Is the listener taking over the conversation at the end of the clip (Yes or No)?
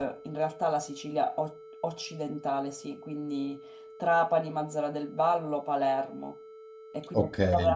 No